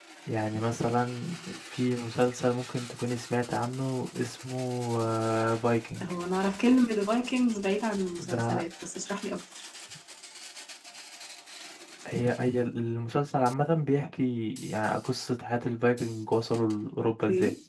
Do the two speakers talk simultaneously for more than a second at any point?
No

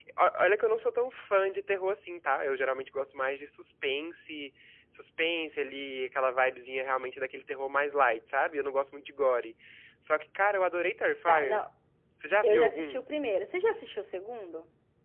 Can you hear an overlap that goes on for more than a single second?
No

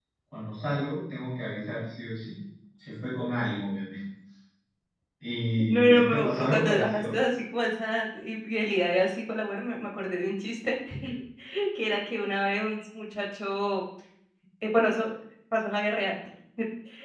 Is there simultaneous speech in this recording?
Yes, from 5.7 s

